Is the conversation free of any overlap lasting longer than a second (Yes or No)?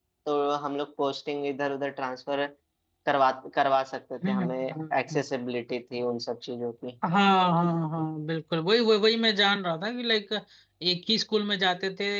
Yes